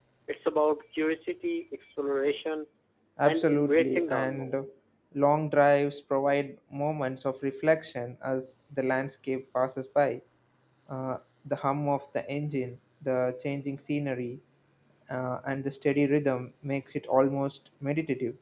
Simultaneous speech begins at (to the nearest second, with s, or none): 3 s